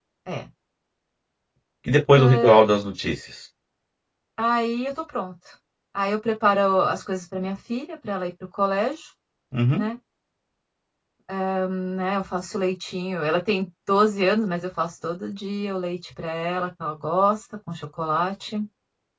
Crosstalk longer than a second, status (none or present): none